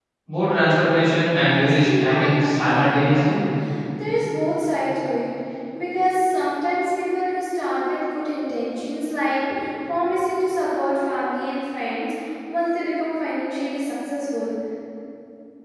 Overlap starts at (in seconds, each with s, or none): 1.3 s